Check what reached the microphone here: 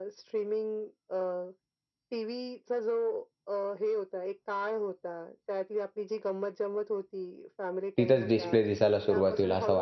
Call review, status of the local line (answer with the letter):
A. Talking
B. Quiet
A